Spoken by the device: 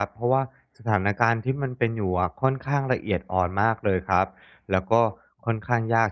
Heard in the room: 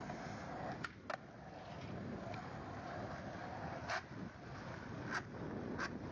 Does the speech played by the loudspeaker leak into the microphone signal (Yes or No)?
No